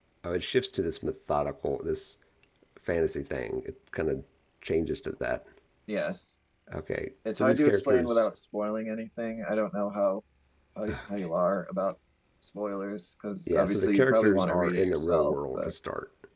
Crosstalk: present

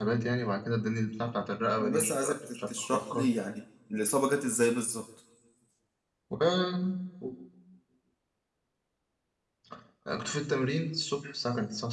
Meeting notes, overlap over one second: present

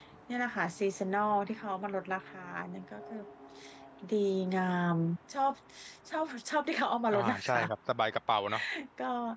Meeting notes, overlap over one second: none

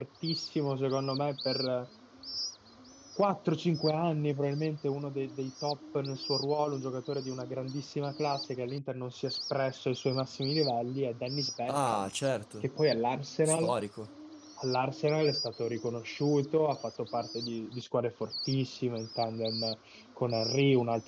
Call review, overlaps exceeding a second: none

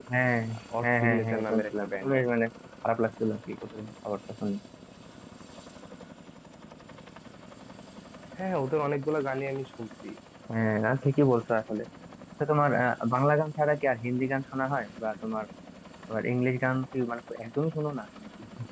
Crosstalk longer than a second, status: present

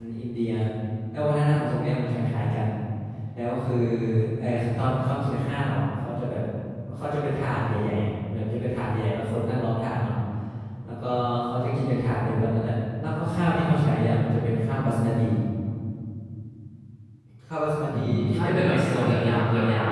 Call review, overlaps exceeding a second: present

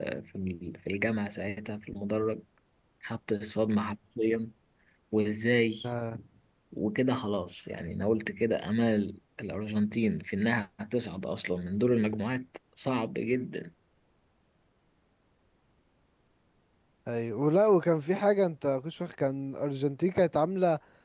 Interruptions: none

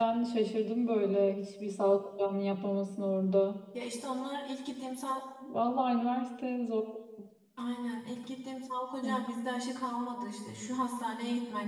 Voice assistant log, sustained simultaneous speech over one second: none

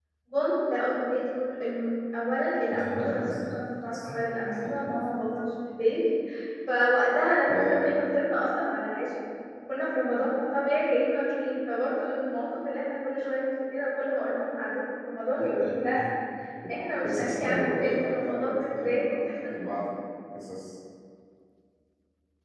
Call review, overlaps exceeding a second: present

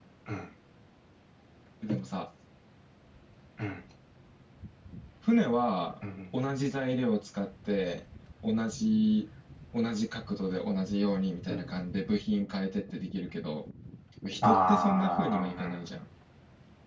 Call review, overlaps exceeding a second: present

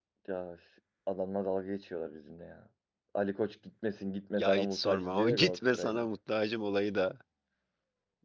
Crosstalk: present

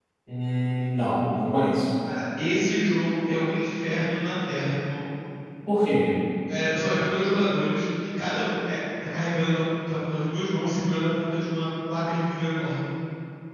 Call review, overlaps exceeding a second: none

